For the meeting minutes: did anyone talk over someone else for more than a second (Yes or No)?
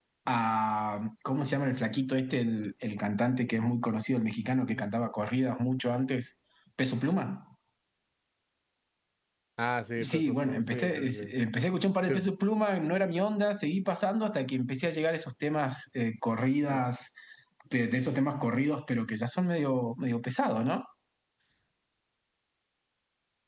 Yes